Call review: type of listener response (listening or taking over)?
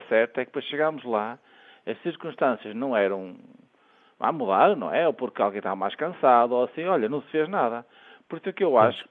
listening